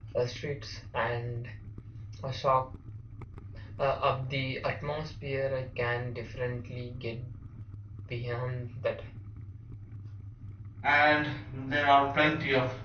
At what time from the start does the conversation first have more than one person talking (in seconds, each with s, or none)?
none